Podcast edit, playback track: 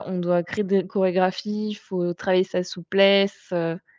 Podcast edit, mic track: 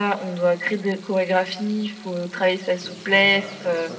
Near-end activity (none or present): present